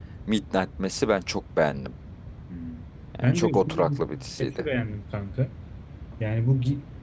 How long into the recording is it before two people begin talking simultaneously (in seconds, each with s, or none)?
3.2 s